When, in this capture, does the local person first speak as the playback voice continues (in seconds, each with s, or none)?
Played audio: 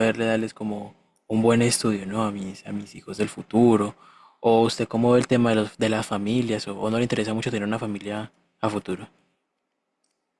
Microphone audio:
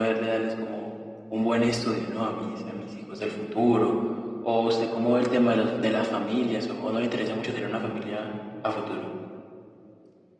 none